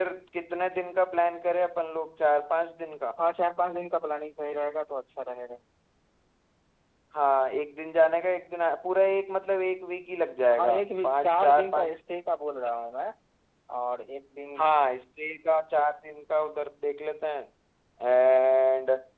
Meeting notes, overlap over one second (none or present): present